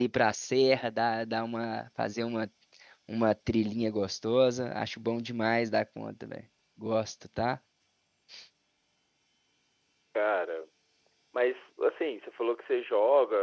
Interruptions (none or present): none